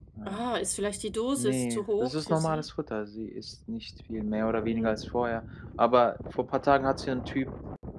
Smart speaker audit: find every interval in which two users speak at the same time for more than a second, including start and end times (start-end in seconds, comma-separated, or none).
1.4-2.6